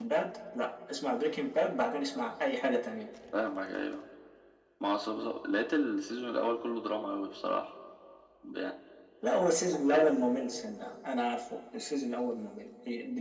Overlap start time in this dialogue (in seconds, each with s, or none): none